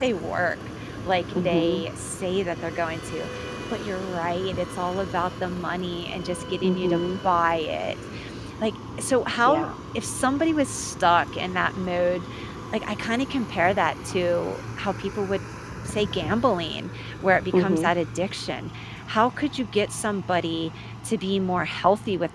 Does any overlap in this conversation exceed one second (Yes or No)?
No